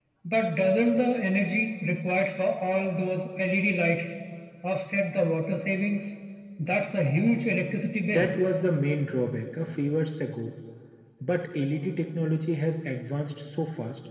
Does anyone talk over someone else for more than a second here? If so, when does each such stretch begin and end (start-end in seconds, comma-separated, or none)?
none